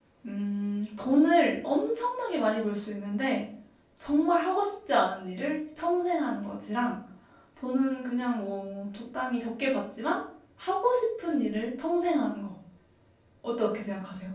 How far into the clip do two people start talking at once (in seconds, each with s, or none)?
none